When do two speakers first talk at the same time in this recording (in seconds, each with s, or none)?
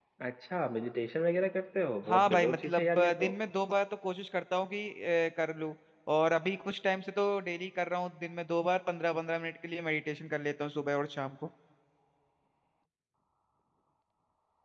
2.0 s